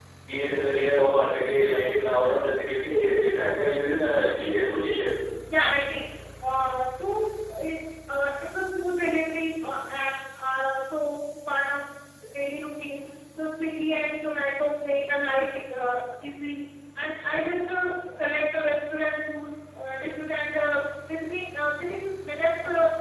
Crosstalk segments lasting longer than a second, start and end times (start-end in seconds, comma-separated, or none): none